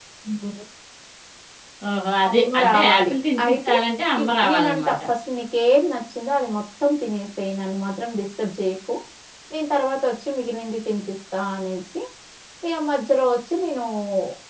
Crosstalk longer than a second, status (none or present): present